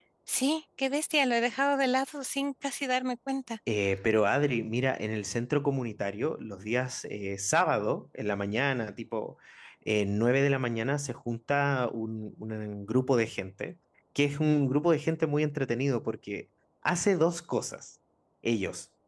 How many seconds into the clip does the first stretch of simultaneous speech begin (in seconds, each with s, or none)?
none